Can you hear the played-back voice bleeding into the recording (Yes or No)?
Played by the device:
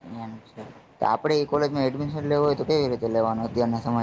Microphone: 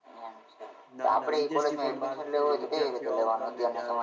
Yes